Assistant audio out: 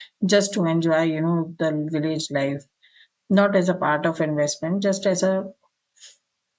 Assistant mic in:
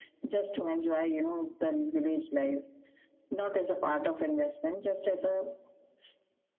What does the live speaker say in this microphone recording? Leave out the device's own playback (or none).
none